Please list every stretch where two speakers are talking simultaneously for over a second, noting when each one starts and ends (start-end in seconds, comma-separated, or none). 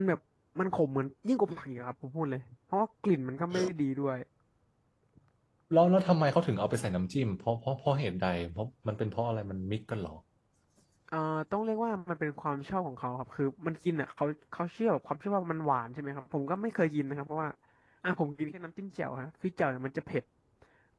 none